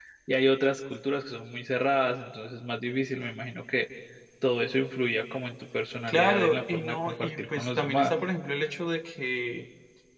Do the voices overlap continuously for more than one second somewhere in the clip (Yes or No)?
Yes